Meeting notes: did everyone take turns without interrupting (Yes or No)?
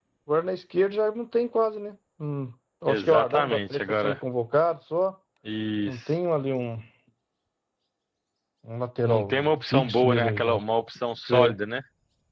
No